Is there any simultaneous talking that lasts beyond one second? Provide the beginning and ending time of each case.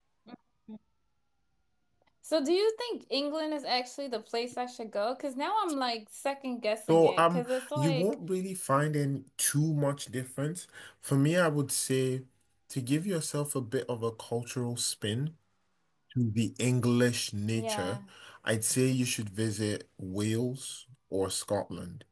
6.9-8.1

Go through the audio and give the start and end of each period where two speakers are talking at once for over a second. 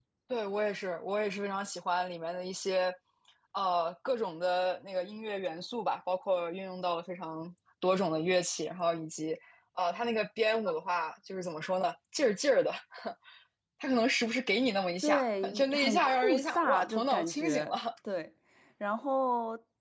15.0-17.7

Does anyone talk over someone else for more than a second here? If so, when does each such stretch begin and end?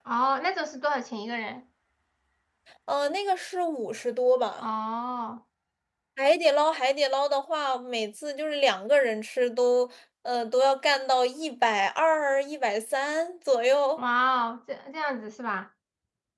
none

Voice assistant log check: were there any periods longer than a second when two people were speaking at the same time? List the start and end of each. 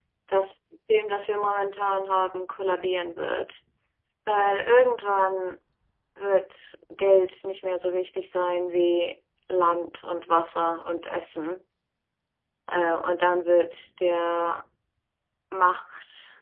none

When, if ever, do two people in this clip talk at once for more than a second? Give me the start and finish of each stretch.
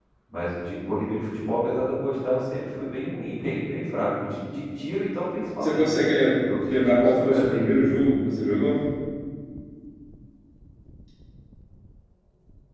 6.7-7.9

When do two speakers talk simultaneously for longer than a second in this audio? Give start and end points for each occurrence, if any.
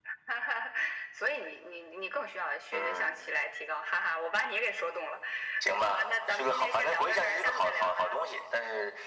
5.8-8.2

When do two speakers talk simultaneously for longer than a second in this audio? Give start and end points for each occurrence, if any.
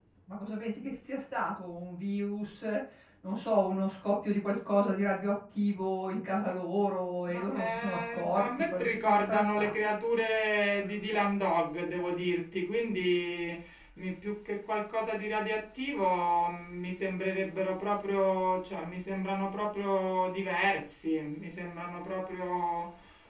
7.3-9.9

